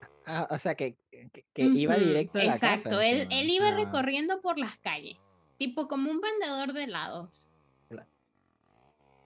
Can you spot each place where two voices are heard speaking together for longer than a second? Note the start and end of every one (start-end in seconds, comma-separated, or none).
1.6-4.0